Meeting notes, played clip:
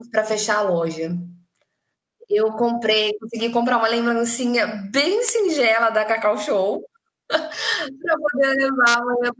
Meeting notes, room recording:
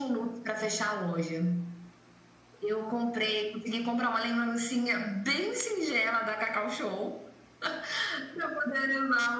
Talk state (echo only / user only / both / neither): echo only